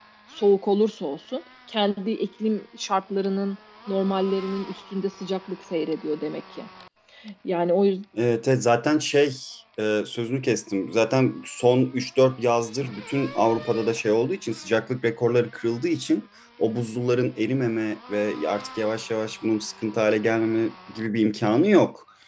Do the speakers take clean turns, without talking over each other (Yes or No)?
Yes